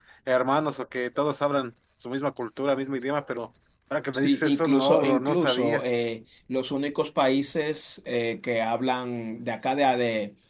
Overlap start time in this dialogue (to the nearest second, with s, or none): 4 s